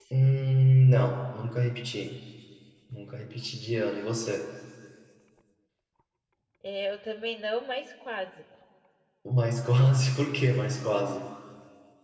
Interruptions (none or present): none